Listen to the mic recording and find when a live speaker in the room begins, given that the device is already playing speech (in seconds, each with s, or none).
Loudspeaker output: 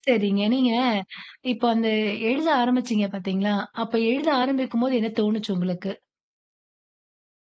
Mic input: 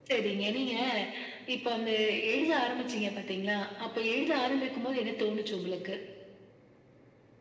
none